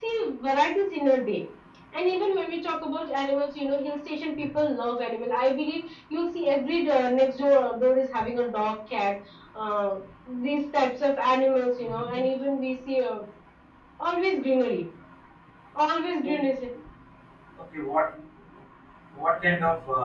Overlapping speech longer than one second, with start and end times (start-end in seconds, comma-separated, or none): none